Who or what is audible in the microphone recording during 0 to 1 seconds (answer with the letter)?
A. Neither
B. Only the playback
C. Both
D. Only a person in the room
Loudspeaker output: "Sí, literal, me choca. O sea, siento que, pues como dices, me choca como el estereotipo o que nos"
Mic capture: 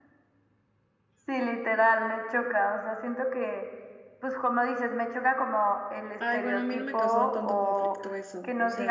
A